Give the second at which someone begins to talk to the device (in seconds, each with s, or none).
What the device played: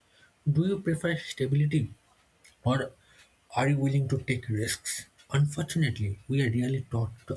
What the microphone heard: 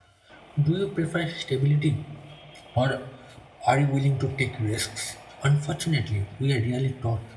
none